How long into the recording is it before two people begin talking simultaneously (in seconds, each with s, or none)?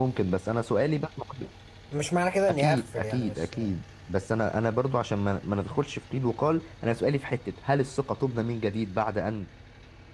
2.5 s